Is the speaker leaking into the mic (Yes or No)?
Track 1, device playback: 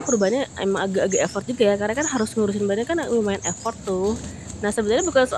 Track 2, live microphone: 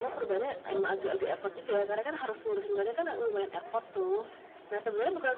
Yes